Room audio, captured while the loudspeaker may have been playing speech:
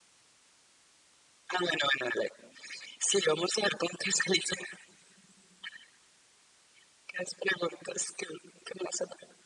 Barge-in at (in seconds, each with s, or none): none